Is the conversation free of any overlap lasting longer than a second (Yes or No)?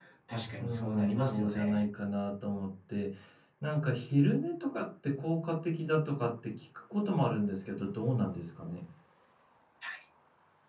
No